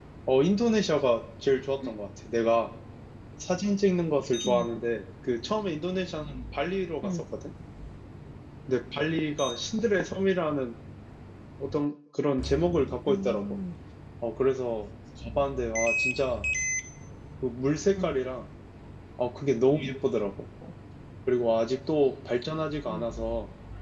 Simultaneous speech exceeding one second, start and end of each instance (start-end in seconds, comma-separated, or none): none